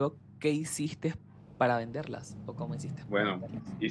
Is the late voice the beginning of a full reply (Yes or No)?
Yes